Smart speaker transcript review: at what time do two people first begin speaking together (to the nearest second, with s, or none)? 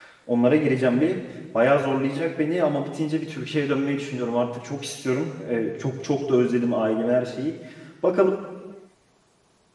none